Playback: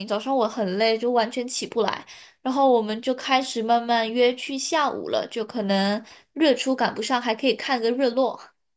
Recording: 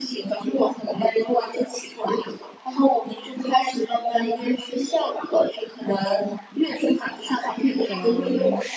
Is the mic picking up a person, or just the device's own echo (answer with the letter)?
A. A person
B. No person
A